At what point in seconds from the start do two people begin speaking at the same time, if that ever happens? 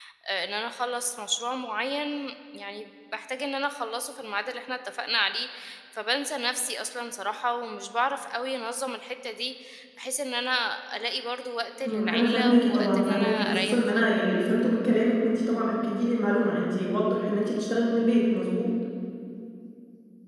11.8 s

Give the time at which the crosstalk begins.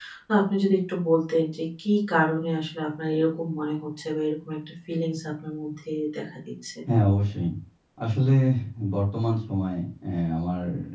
none

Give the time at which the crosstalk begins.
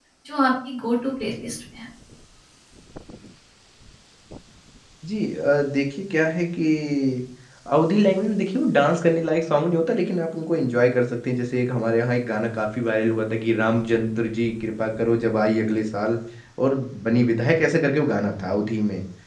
none

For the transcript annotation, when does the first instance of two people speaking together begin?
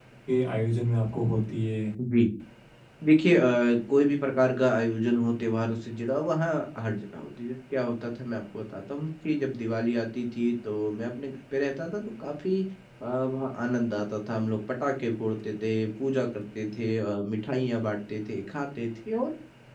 none

